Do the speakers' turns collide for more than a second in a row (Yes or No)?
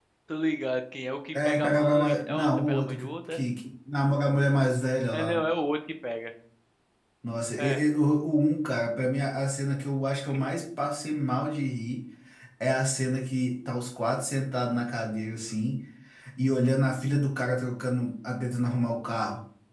Yes